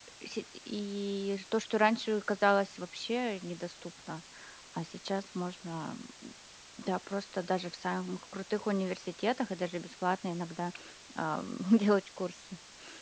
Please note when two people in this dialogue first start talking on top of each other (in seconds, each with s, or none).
none